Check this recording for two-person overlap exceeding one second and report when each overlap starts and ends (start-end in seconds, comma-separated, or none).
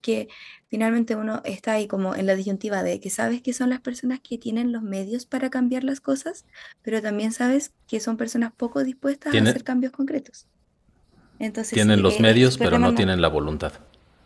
11.7-13.1